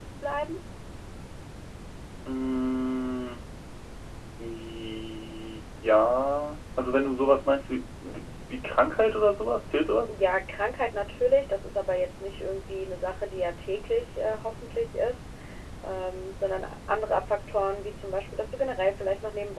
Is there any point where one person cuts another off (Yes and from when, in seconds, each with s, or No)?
No